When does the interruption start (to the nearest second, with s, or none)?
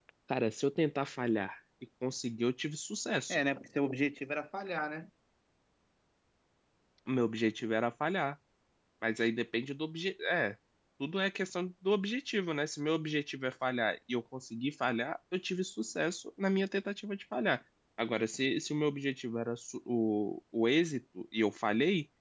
none